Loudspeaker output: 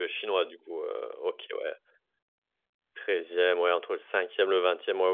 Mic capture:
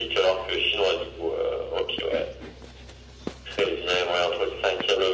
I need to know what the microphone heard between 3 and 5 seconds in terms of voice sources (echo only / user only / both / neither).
echo only